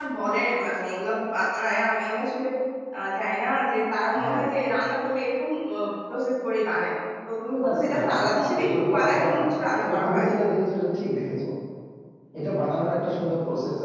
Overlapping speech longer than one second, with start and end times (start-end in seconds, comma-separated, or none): 7.6-9.4